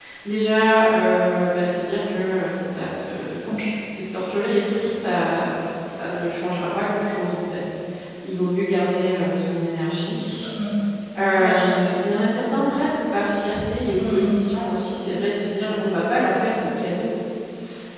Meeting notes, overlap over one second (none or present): none